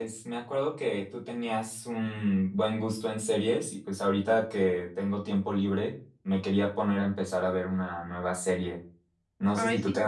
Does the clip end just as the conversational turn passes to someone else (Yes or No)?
No